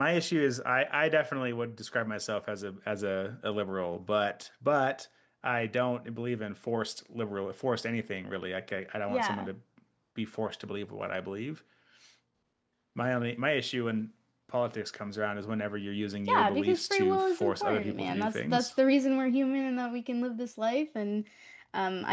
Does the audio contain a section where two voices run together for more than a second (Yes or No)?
Yes